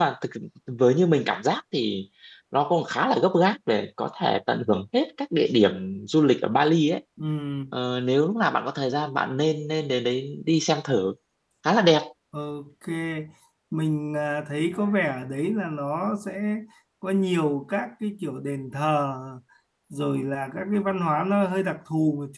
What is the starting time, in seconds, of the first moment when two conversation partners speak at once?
none

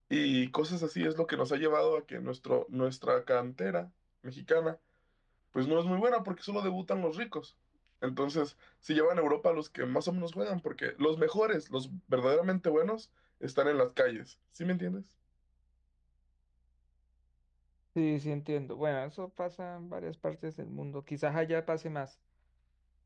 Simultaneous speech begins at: none

